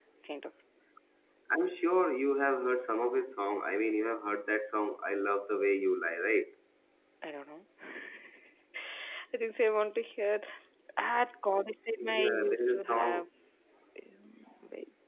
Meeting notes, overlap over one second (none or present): present